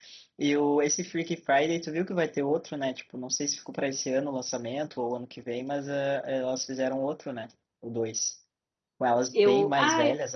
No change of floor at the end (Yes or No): Yes